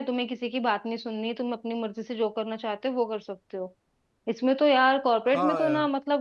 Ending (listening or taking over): listening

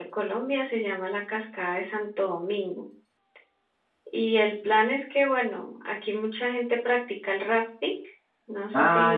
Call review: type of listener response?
taking over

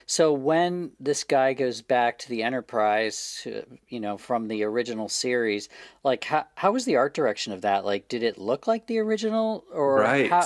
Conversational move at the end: taking over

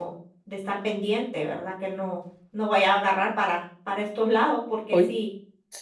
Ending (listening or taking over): taking over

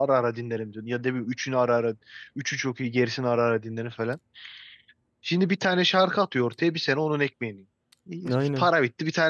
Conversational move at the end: listening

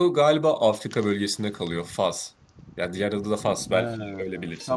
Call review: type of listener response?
taking over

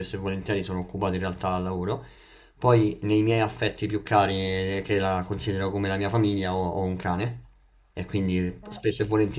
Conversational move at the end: listening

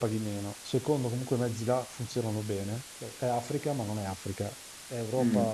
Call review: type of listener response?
taking over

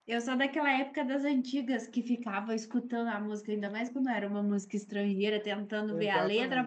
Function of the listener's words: listening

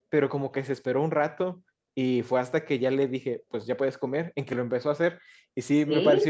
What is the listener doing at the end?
listening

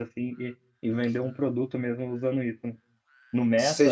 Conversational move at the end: taking over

